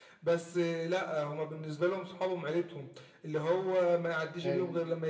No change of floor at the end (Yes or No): Yes